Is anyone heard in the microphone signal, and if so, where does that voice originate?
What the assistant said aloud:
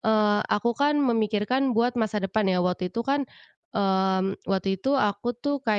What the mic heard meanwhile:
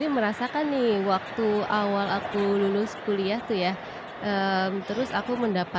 user only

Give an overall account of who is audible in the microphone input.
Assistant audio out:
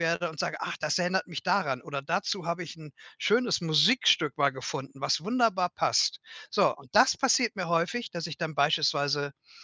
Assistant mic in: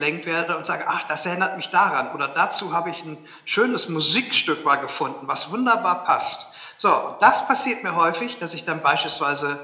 echo only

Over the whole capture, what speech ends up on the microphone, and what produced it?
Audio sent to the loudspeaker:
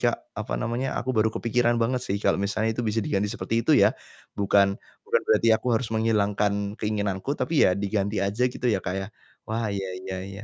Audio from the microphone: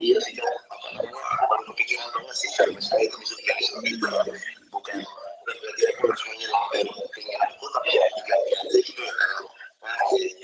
both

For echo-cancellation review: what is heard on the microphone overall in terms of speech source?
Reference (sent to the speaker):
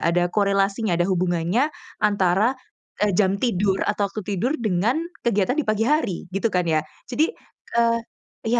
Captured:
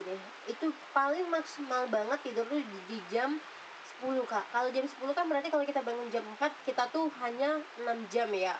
user only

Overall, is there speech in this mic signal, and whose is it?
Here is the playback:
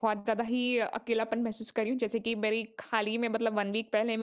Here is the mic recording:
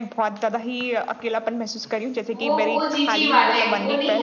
both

